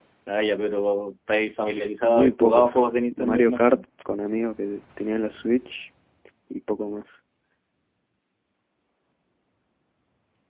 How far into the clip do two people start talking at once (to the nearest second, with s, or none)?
2 s